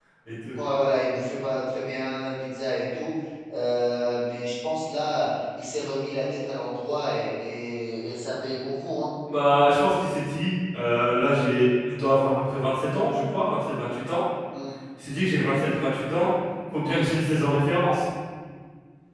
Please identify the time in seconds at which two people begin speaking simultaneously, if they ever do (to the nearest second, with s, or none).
none